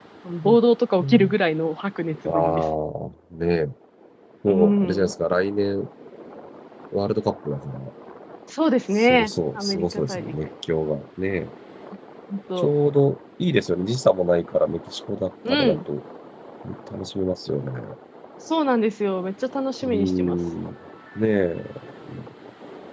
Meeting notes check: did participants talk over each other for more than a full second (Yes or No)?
Yes